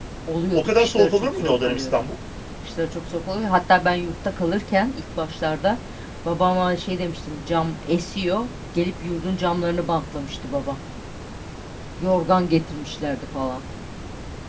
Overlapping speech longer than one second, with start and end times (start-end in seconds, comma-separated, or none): 0.5-2.1